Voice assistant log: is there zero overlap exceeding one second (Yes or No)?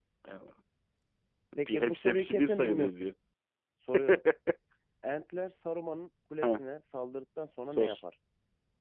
No